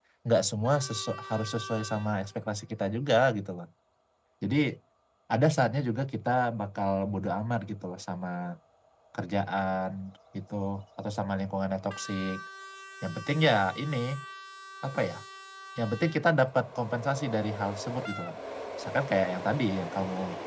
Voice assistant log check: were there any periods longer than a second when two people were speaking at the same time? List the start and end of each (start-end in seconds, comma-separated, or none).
none